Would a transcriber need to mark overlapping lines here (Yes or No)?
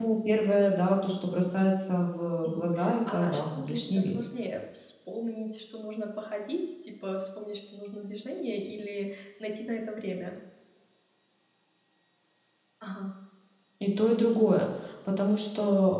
Yes